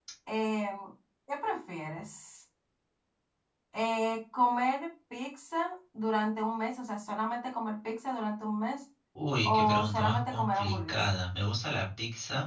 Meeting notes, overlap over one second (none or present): present